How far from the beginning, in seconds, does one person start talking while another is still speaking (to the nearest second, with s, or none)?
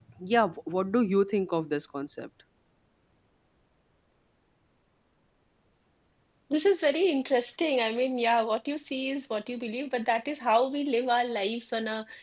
none